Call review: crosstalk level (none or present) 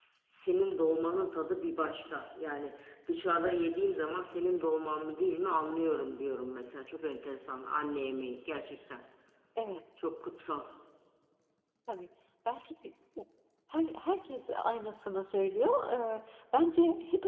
none